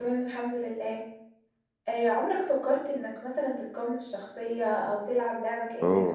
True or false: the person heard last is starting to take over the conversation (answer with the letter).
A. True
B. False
A